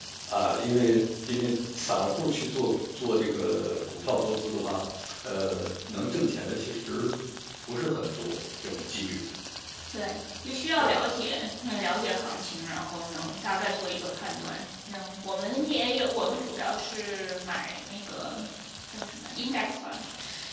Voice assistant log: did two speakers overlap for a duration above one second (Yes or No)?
No